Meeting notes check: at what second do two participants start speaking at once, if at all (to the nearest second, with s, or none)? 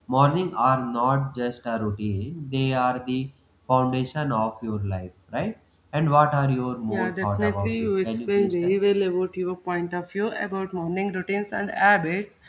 7 s